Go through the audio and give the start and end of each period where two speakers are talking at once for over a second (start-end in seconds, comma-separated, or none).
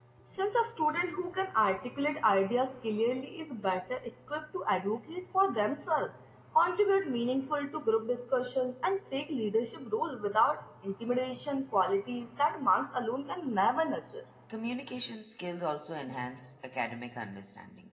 none